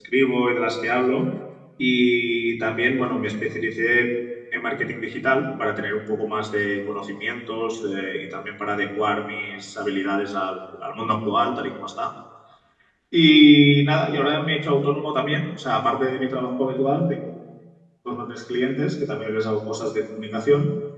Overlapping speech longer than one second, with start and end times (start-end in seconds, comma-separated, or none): none